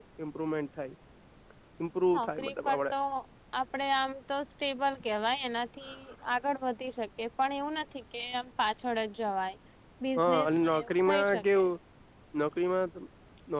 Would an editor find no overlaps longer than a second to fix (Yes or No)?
No